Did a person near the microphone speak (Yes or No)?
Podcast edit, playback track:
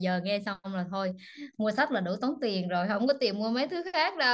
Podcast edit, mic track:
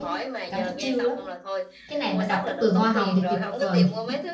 Yes